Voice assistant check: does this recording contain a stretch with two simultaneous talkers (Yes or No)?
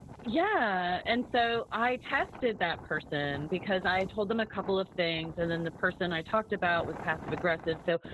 No